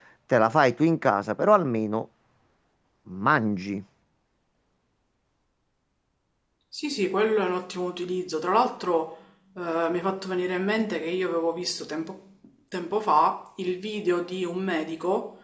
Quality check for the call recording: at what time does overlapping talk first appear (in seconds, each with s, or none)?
none